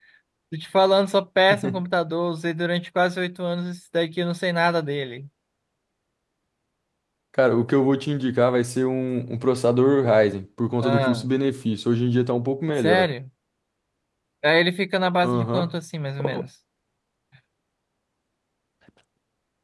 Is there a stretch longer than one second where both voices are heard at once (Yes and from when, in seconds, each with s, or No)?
No